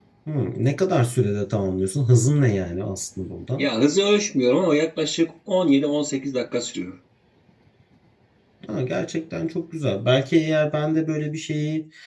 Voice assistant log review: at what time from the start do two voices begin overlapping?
none

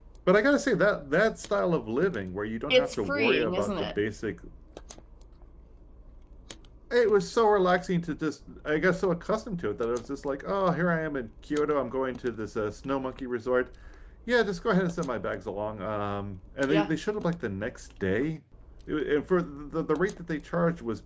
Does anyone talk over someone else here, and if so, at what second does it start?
2.7 s

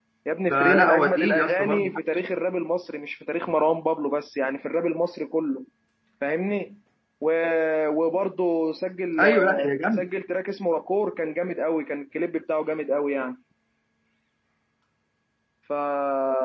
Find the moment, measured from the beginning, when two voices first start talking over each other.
0.5 s

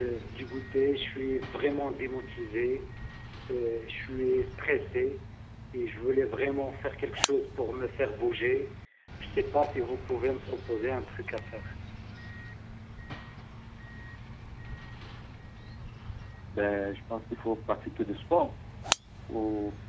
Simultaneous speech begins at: none

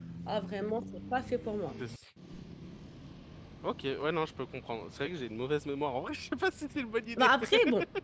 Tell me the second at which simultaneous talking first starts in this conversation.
none

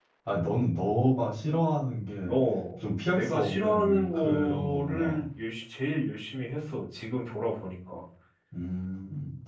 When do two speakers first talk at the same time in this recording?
3.1 s

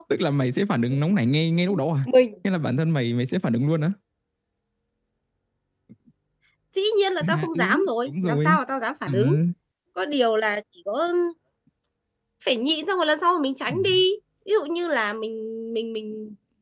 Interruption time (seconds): 7.2 s

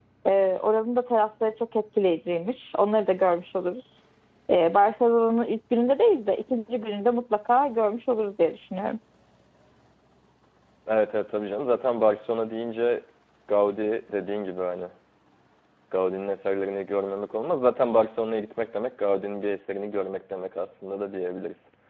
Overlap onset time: none

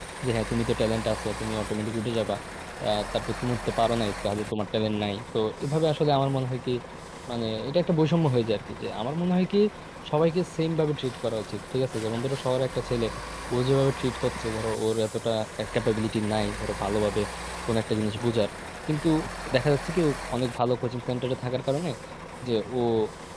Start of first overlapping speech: none

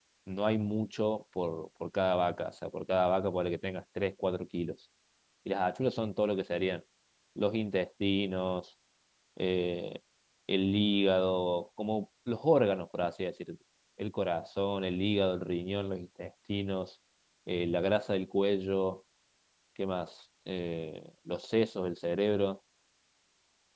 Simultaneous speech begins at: none

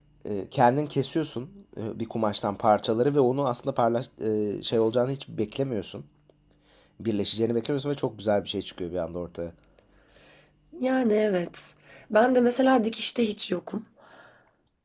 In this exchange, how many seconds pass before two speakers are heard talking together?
none

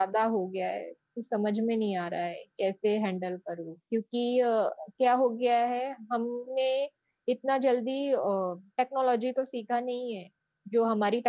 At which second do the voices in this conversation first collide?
none

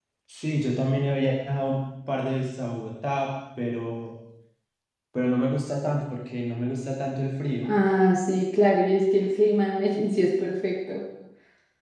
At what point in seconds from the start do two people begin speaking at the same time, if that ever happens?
none

